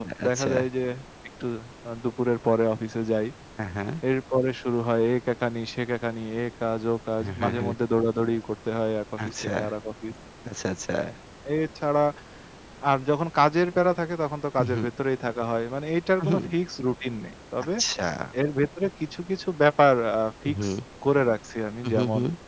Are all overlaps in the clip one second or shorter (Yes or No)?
Yes